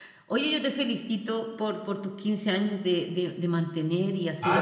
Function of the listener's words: taking over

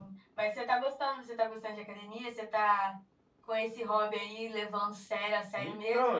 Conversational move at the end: taking over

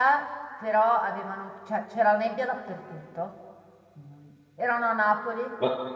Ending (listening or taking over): listening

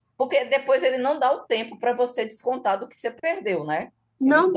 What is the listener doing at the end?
taking over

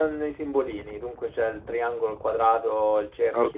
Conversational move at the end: taking over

